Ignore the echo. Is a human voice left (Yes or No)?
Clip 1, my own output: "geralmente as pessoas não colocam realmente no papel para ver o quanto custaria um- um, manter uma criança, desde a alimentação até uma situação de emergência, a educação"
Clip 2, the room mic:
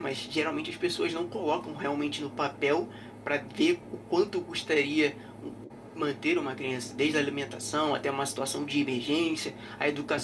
No